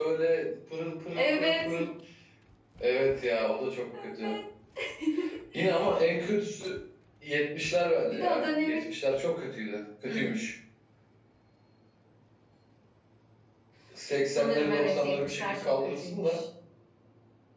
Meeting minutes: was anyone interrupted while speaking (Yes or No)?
Yes